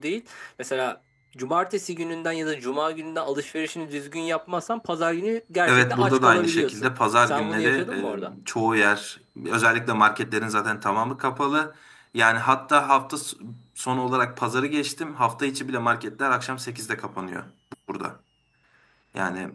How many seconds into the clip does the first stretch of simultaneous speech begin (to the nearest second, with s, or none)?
6 s